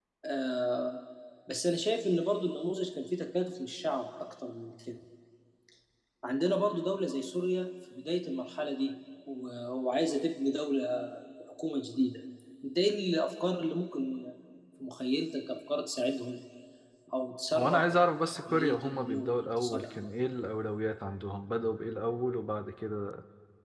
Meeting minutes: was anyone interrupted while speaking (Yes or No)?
Yes